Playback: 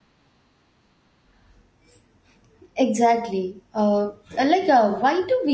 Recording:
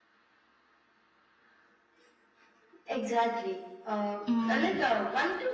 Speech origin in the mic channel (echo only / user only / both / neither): both